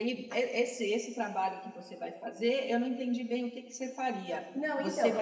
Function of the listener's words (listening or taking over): listening